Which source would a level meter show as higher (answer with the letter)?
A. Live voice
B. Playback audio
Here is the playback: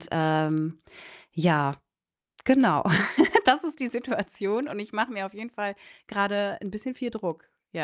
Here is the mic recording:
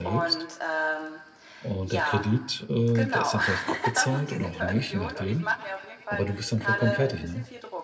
A